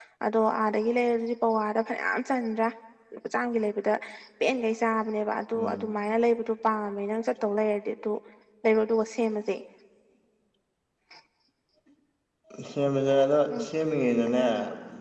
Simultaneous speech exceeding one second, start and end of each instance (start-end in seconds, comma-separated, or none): none